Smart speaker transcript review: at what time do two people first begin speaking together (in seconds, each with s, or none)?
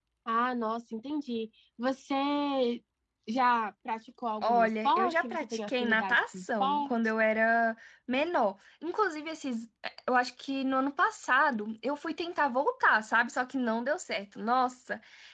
4.4 s